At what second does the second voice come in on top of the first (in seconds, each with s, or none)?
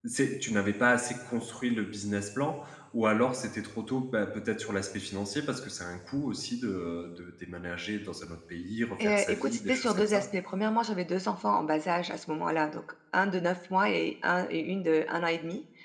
9.0 s